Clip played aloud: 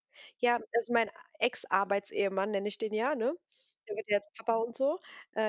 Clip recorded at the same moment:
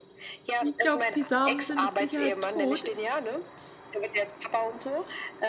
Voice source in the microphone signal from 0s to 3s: both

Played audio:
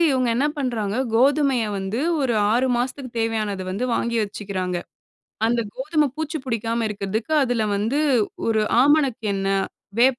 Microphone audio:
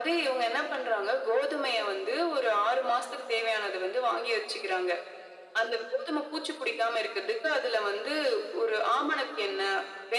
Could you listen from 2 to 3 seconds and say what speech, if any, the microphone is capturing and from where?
echo only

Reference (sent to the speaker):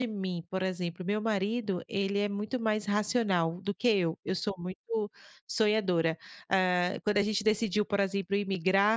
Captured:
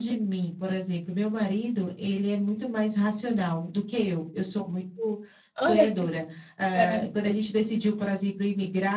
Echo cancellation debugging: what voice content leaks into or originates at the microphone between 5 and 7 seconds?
both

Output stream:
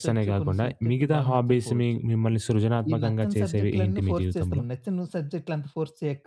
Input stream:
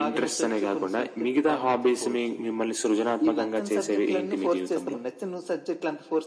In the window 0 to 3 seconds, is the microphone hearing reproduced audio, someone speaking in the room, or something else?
echo only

